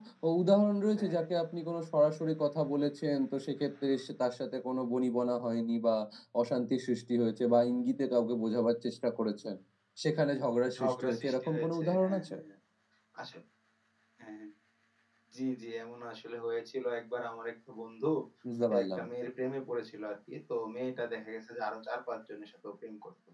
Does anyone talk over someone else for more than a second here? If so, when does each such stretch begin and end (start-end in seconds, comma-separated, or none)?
10.8-12.3